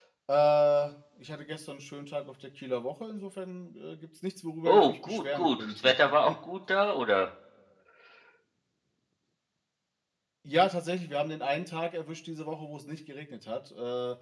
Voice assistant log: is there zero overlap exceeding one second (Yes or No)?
No